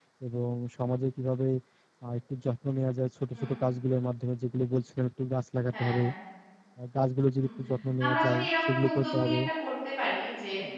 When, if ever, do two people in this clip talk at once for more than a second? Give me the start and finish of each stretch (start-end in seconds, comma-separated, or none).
8.0-9.4